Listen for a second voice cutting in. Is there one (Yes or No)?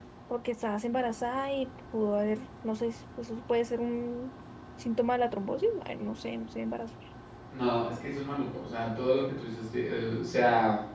No